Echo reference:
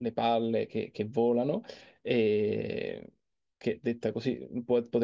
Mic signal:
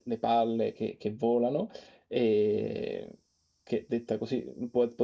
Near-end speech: none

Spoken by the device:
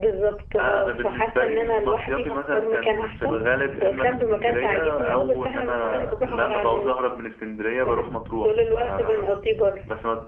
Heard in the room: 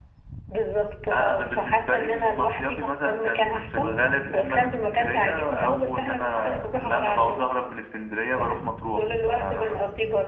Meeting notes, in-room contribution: none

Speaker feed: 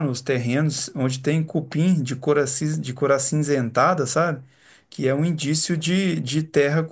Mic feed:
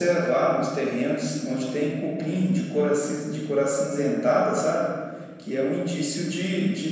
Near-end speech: none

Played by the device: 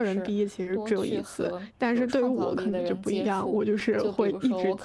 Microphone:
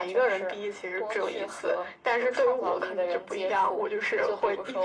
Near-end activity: none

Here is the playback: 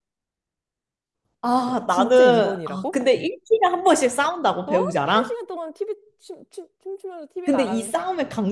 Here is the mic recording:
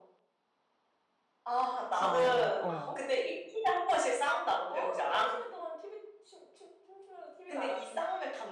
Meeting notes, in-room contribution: present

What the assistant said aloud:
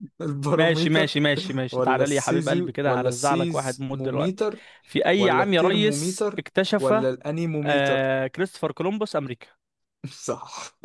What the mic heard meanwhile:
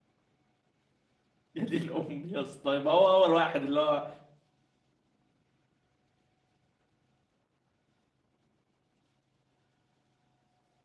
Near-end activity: present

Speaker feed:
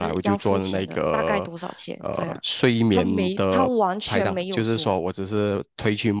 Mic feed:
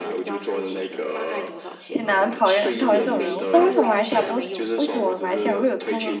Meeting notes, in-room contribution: present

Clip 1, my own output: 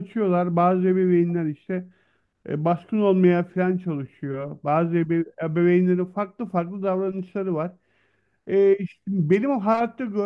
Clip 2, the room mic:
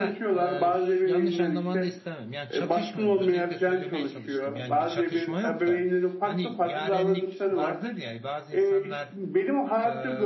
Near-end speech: present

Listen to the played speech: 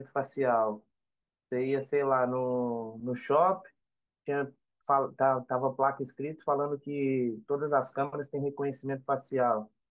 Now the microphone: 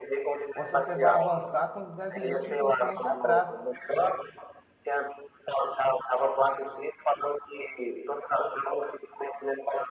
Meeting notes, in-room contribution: present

